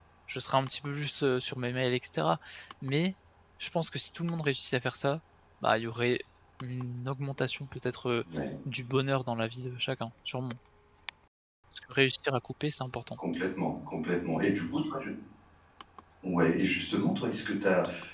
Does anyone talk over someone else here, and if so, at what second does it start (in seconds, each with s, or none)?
none